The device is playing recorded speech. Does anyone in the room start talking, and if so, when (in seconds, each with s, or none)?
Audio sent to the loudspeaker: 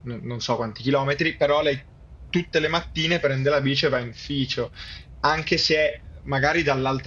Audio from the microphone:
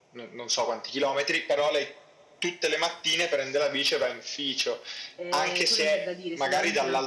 5.1 s